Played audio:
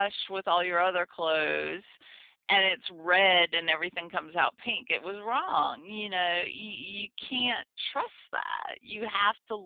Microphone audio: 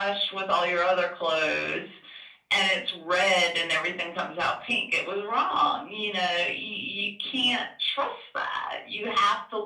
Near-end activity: none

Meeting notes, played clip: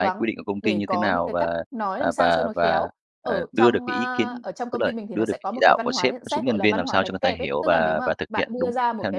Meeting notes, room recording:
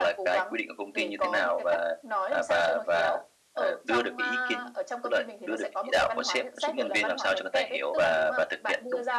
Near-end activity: none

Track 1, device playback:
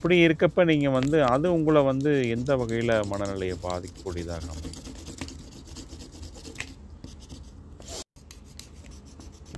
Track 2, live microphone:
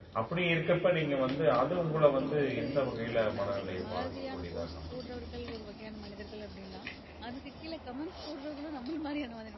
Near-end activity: present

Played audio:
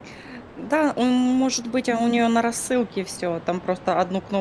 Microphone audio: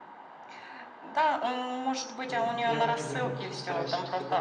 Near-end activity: present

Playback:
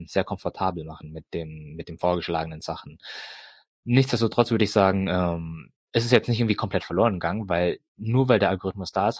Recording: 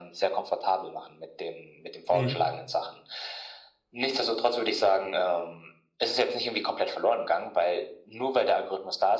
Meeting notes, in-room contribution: present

